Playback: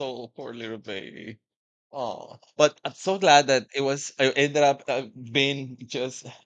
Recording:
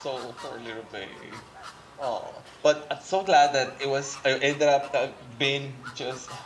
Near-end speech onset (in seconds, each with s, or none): none